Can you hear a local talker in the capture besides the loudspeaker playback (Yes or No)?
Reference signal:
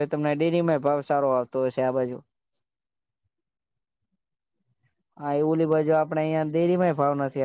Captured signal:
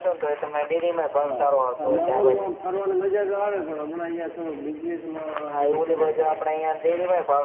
Yes